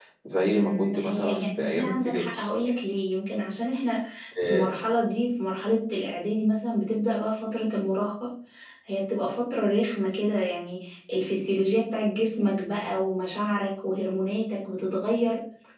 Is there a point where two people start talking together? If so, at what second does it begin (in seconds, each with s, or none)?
0.5 s